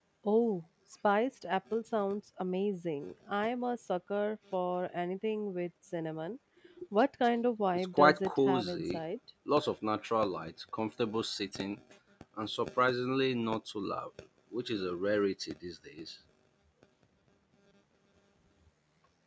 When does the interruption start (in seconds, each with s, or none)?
7.7 s